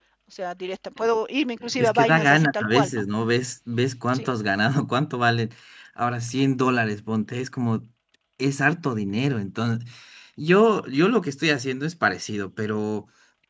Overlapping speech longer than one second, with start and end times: 1.8-3.0

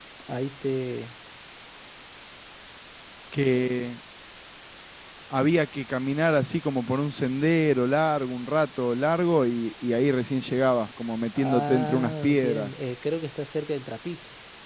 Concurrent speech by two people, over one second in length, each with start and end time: 11.3-12.8

